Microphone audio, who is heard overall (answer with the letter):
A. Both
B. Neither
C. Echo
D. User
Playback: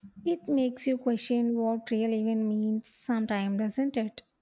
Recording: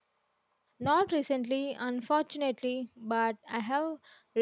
D